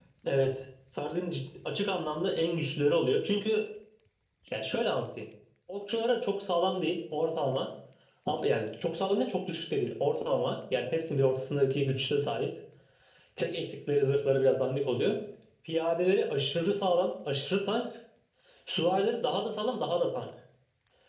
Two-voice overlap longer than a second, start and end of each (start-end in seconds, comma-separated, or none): none